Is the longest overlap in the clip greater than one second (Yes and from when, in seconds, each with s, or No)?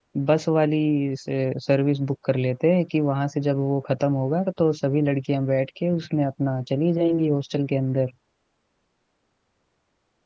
No